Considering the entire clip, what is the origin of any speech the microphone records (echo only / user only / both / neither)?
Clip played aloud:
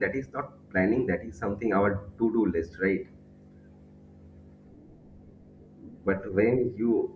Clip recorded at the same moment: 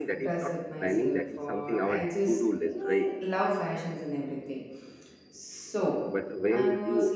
both